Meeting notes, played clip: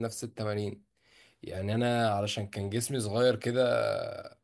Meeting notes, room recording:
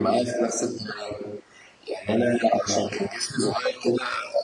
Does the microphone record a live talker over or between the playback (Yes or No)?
No